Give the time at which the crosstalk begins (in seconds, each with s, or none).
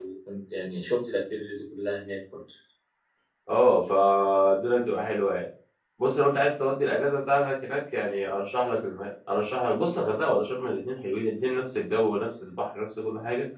none